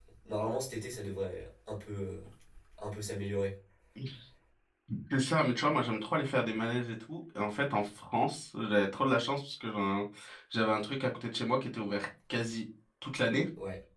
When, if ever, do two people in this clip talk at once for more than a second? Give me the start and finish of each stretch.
none

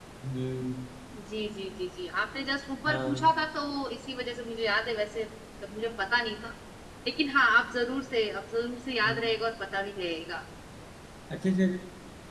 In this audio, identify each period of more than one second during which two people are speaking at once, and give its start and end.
none

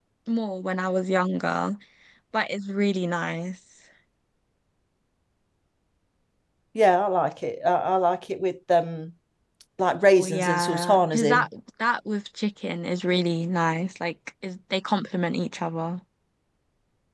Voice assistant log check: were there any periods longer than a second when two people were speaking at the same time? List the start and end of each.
10.1-11.5

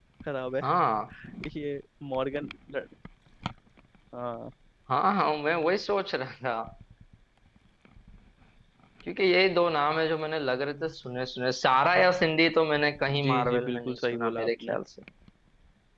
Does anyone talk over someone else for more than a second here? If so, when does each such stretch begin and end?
13.2-14.8

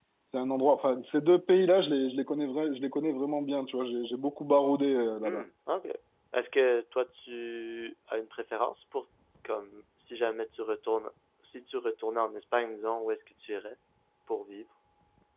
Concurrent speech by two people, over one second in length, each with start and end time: none

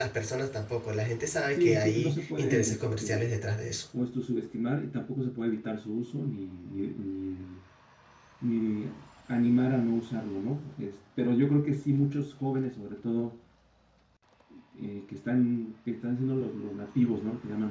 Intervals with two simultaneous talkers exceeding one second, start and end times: 1.5-3.3

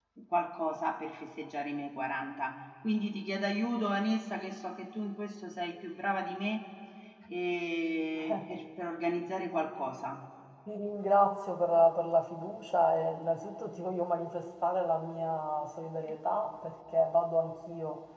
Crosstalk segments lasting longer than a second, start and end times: none

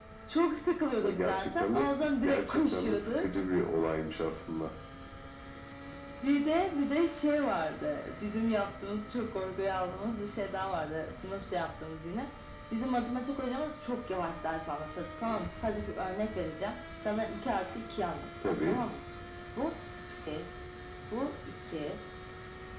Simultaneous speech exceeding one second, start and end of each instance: 1.0-3.3

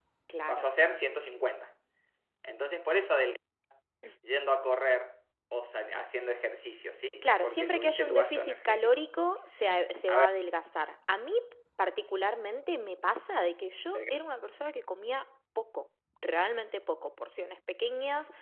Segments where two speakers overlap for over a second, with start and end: 7.2-9.0

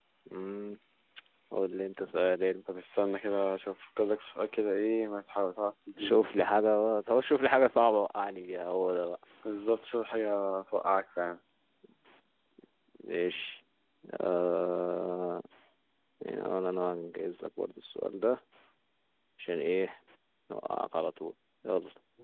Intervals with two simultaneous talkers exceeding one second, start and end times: none

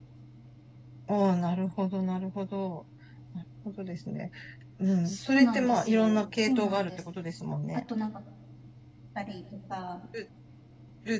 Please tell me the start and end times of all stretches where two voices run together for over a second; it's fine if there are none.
5.0-7.0

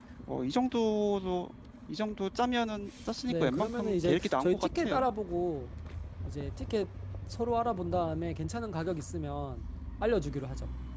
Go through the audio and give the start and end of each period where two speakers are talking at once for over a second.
3.3-5.1

